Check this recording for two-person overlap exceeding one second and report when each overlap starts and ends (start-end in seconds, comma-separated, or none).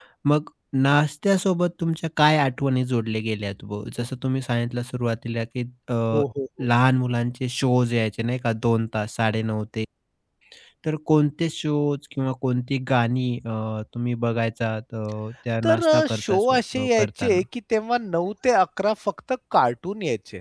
15.6-17.4